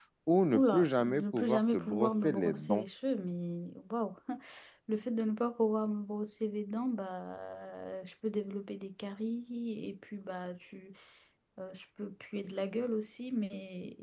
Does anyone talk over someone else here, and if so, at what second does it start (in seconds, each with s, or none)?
0.5 s